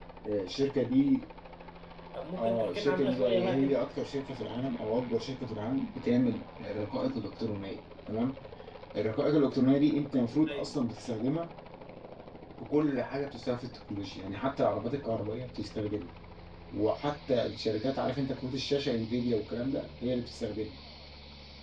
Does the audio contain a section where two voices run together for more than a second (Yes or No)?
Yes